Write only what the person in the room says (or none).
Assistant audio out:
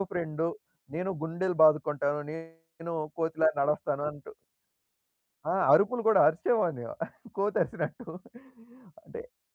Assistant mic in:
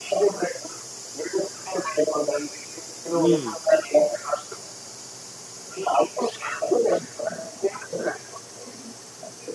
హ్మ్.